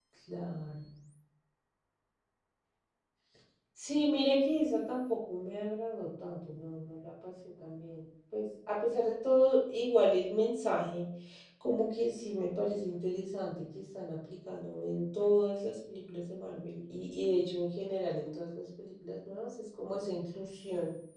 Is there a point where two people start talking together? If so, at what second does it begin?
none

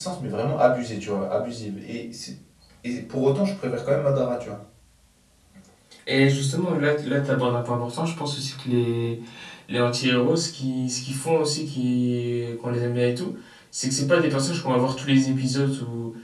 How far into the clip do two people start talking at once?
none

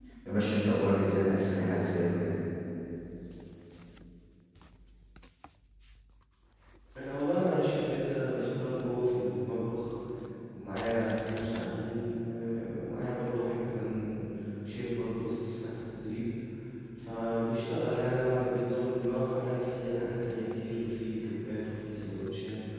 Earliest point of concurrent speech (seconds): none

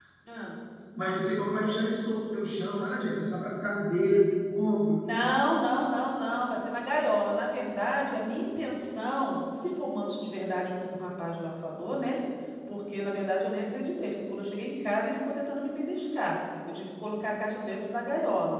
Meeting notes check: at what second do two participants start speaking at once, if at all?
none

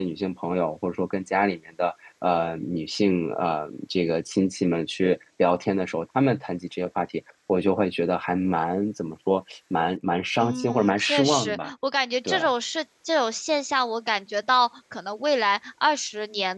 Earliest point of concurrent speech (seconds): 10.4 s

